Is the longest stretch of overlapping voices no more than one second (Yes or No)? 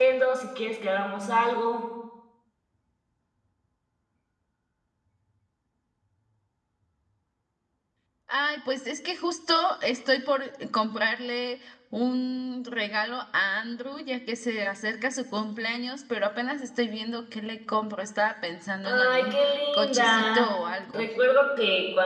No